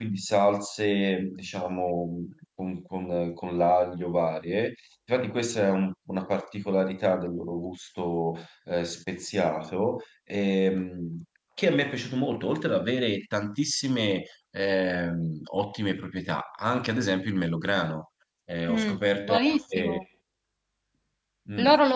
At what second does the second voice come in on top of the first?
19 s

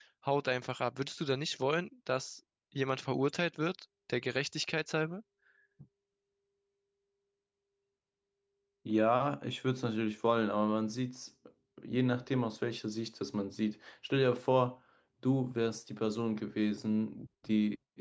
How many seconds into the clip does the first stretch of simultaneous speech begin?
none

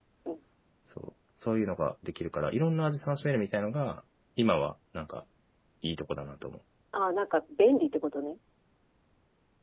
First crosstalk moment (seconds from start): none

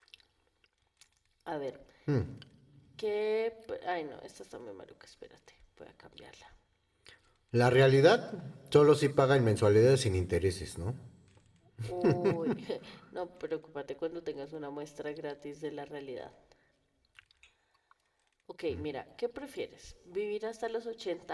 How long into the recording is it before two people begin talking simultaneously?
none

